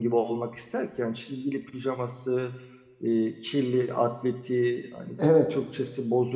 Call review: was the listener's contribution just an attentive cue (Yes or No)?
Yes